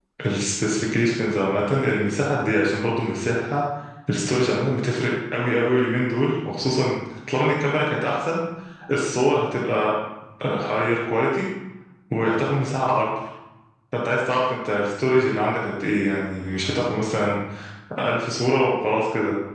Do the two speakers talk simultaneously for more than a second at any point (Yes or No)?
No